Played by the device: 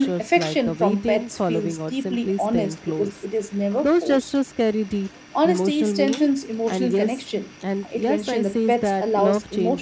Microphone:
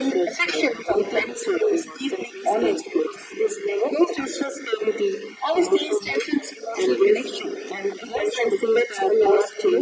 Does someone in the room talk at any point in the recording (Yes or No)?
No